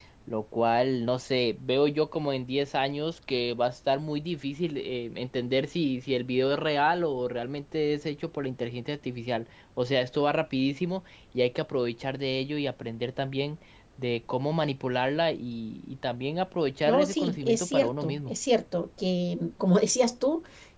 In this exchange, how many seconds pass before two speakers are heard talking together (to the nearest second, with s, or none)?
17 s